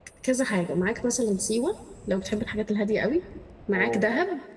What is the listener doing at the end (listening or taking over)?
listening